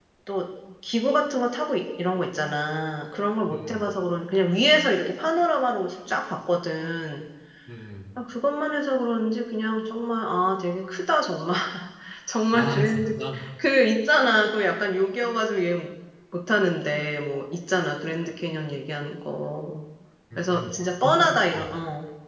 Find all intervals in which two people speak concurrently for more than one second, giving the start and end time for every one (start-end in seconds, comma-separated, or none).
20.4-21.6